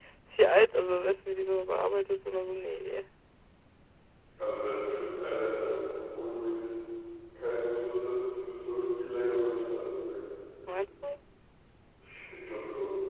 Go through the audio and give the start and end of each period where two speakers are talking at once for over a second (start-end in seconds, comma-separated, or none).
none